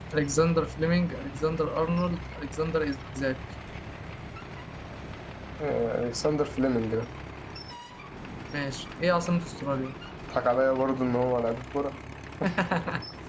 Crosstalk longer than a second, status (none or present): none